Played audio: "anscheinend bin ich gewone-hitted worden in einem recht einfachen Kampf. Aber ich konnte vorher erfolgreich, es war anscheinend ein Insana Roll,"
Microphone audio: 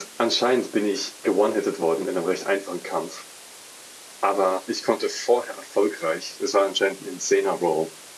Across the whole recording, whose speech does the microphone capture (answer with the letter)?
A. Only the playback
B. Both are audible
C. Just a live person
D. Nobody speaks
A